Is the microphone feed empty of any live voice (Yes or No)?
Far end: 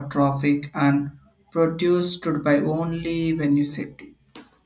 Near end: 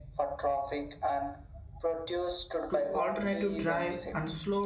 No